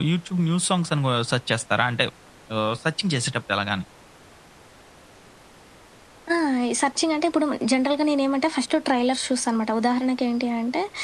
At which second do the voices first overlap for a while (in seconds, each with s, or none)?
none